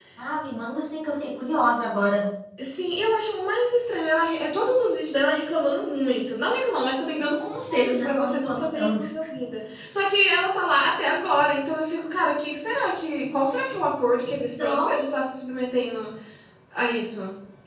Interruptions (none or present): present